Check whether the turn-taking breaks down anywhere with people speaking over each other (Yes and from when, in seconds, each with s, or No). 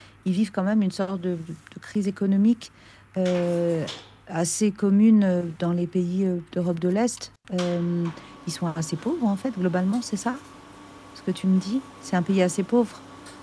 No